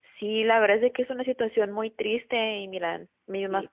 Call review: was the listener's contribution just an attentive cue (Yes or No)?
Yes